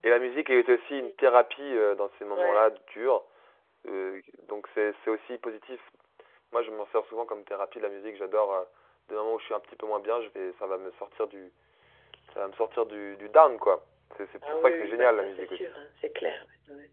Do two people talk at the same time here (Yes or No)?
Yes